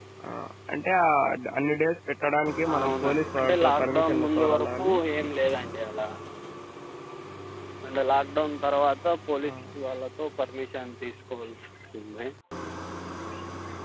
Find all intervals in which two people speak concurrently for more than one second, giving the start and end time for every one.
2.7-5.0

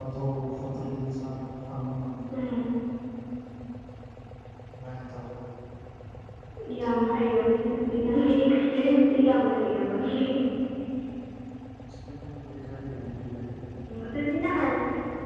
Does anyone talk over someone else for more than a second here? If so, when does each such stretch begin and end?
none

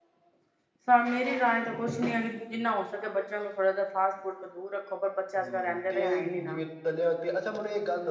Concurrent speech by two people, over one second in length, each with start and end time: 5.4-6.6

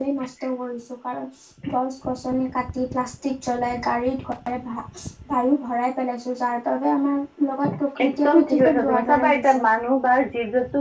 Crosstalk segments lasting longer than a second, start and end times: 8.0-9.6

